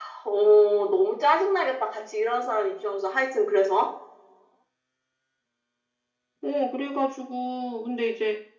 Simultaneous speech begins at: none

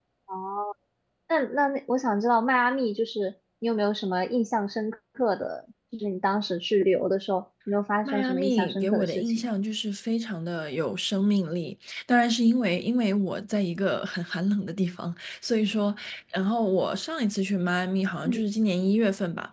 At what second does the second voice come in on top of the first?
8.1 s

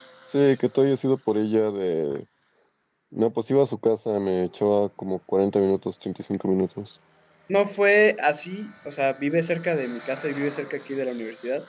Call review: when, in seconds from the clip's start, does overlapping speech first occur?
none

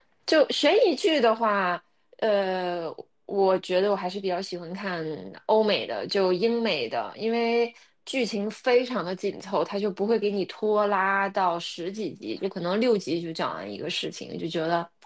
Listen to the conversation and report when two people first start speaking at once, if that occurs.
none

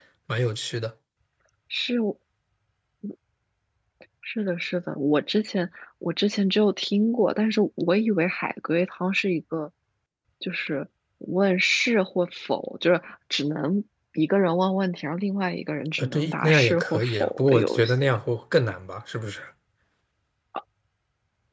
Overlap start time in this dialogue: 16.0 s

